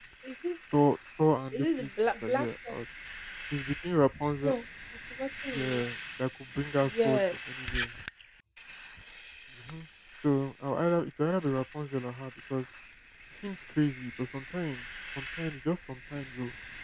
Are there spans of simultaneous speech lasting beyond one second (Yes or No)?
Yes